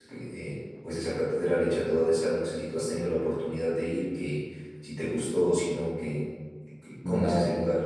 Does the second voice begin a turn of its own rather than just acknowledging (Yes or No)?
Yes